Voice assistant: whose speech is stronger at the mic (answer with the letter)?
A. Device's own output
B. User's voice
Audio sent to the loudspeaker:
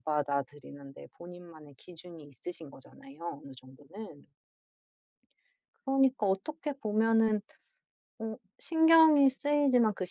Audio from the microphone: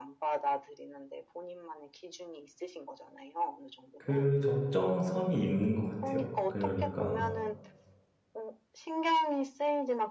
B